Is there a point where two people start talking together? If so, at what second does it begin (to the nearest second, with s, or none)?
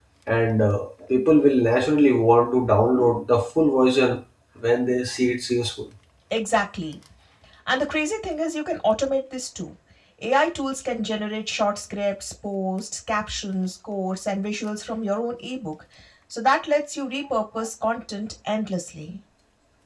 none